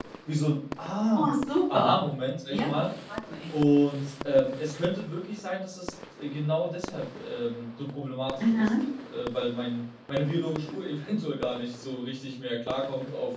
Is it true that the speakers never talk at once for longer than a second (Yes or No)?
Yes